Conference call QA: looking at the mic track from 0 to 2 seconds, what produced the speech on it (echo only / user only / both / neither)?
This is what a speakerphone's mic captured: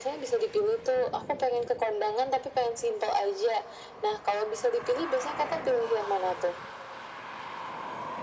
echo only